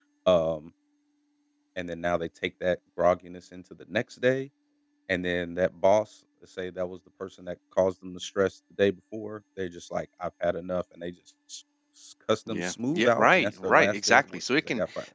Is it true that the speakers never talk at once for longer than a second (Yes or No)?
No